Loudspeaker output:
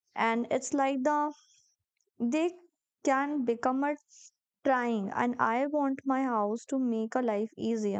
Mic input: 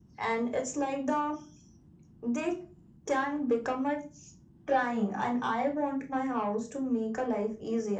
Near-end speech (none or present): none